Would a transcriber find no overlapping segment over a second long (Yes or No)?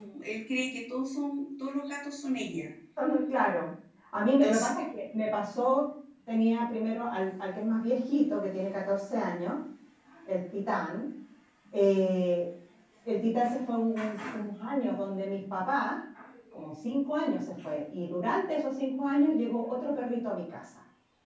Yes